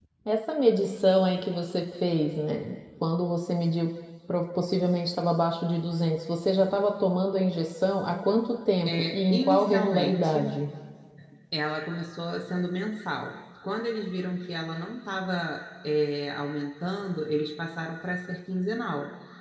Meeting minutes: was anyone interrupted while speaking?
Yes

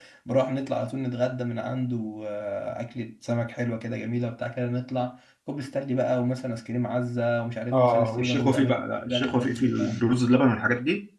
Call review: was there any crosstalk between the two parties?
Yes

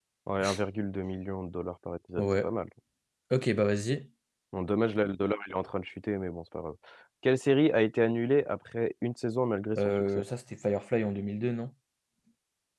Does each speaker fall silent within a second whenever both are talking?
Yes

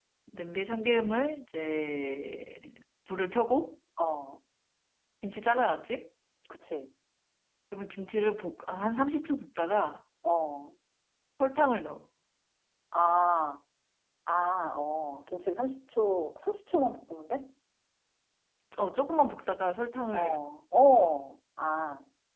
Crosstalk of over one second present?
No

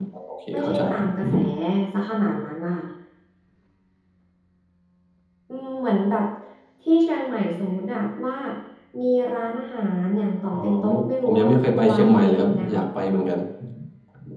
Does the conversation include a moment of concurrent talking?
Yes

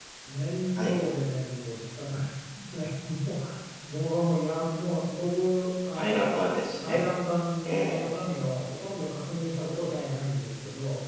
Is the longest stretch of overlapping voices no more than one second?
Yes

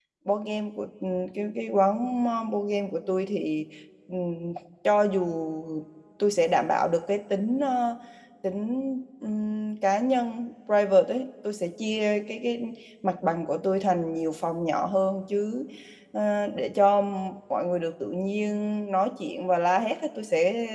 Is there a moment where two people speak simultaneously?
No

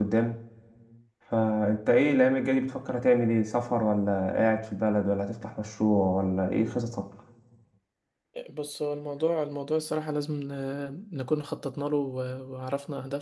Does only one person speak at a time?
Yes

